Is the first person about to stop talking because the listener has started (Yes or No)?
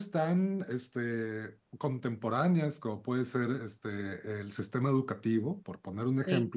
No